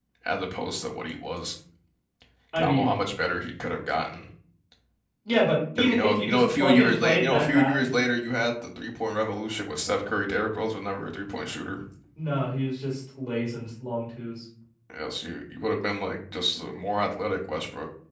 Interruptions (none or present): present